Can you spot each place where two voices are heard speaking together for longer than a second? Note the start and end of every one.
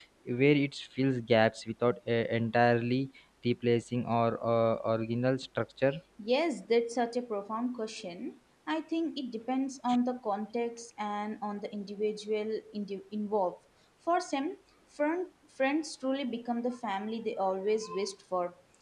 none

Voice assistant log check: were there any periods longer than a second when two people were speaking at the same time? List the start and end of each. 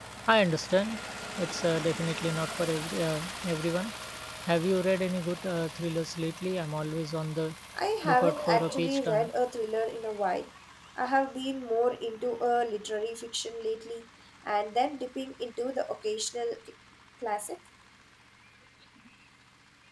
8.0-9.3

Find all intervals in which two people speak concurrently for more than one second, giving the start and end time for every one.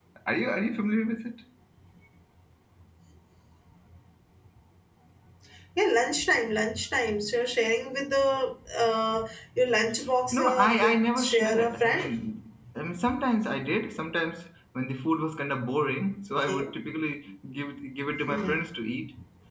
10.3-12.1

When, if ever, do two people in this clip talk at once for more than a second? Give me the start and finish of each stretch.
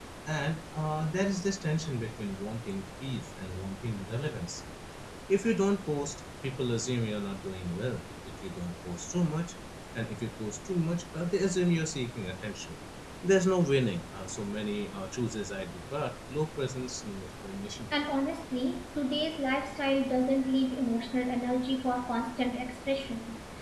none

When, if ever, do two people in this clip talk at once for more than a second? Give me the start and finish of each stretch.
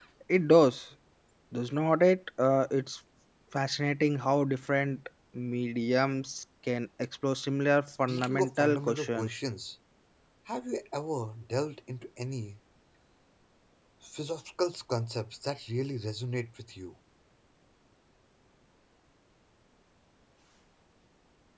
7.9-9.3

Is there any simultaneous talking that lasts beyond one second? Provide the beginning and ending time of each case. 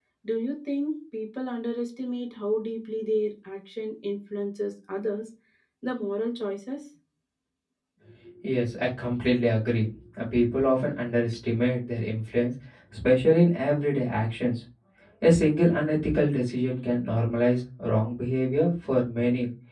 none

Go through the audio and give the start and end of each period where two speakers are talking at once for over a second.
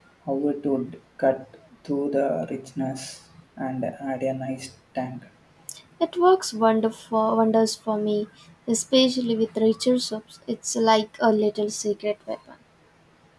none

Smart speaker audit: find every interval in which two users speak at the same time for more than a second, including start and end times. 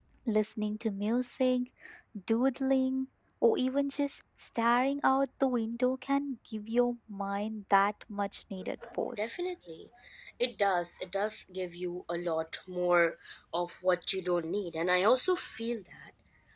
none

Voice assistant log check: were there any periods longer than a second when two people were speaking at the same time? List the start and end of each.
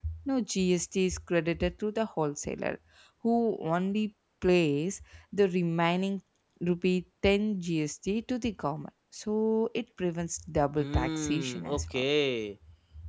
10.8-12.0

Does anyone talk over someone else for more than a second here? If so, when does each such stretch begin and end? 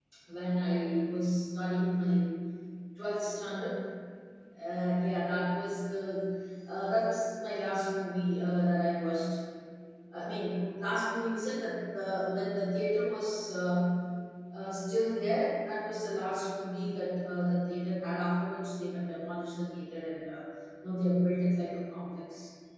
none

